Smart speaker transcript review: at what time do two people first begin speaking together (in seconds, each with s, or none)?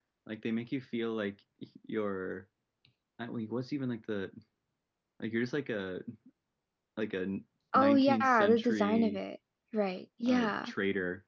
7.8 s